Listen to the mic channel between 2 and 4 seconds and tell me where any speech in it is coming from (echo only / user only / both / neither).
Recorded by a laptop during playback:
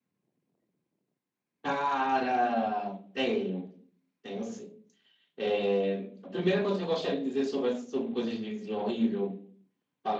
echo only